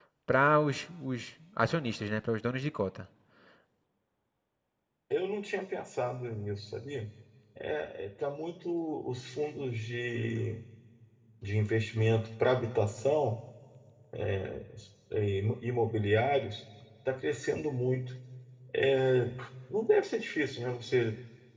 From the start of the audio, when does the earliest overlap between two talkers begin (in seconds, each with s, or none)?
none